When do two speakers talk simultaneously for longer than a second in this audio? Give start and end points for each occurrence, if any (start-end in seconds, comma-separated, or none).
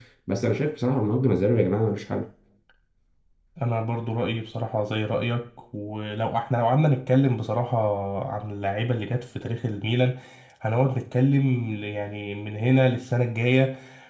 none